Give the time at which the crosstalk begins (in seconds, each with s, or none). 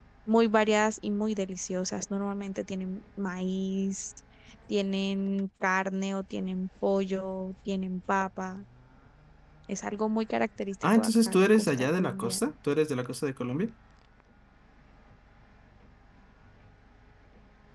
10.8 s